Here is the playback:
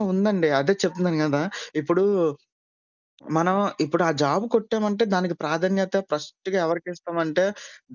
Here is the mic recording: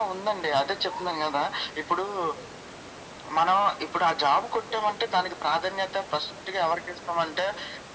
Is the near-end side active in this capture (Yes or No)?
No